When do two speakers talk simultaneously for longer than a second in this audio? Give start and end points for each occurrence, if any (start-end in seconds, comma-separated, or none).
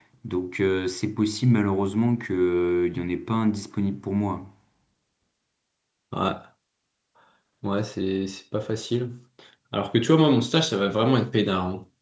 none